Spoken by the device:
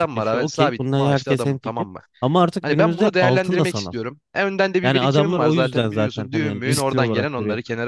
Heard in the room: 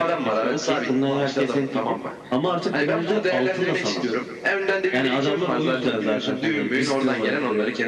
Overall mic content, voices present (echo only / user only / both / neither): echo only